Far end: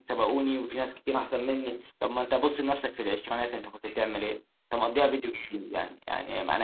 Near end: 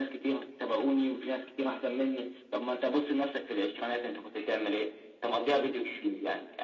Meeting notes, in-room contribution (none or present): none